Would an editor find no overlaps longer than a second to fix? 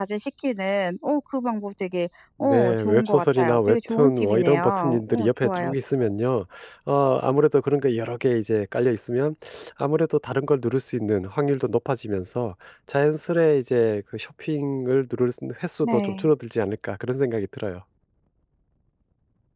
No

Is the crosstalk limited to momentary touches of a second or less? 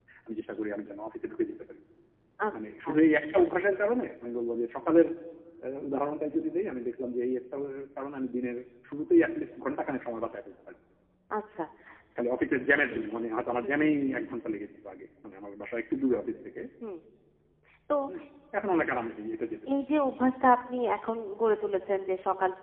Yes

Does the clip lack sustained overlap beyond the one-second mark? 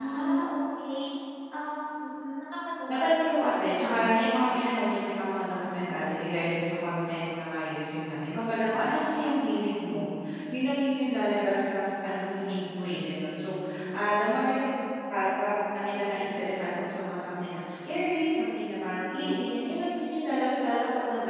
Yes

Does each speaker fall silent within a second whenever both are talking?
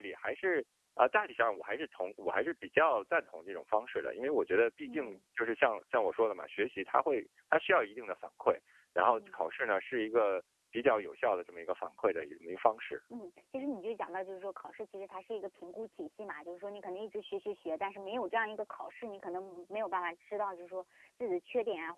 Yes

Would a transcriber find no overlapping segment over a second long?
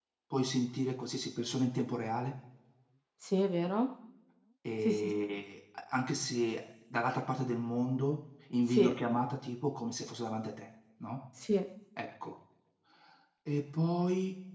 Yes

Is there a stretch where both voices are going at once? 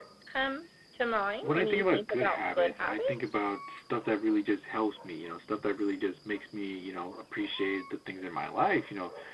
Yes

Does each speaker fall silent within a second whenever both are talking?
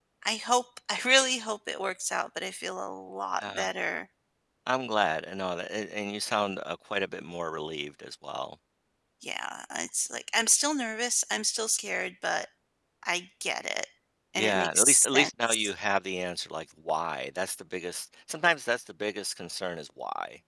No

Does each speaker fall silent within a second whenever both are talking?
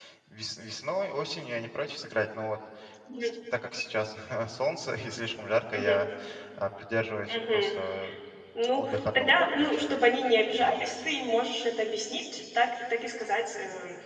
No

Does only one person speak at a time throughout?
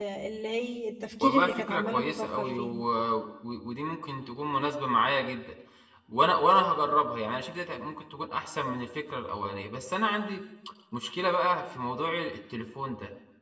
No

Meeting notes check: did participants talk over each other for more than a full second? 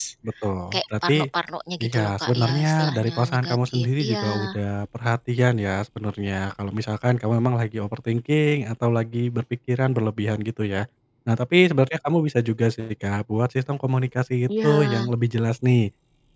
Yes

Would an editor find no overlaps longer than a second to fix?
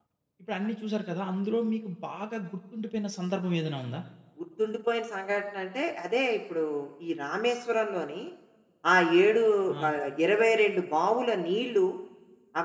Yes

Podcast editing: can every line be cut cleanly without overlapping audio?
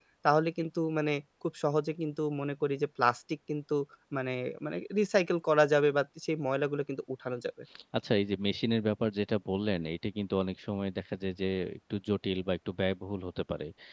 Yes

